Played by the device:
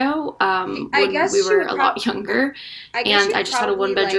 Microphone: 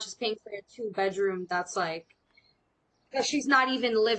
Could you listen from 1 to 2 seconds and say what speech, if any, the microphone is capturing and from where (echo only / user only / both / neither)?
user only